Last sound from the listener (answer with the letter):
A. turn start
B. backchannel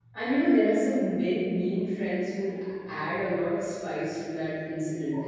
B